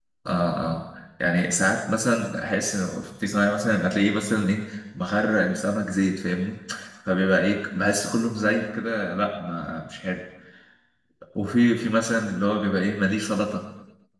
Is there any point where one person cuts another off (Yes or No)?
No